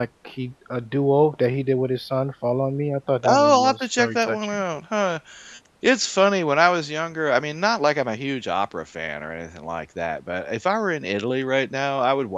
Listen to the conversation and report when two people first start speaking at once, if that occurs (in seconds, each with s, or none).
3.2 s